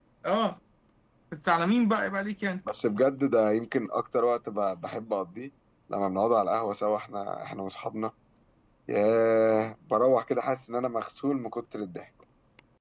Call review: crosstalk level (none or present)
none